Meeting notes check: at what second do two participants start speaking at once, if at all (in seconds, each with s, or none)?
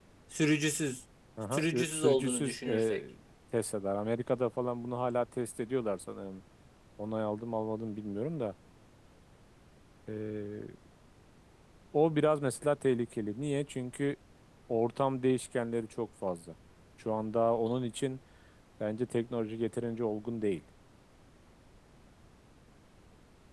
1.4 s